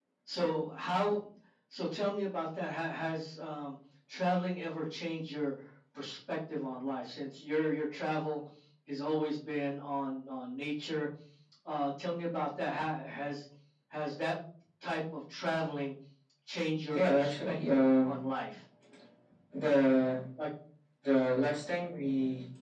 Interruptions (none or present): present